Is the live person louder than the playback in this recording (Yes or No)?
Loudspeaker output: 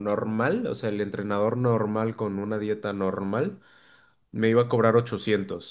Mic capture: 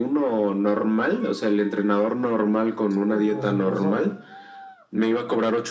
No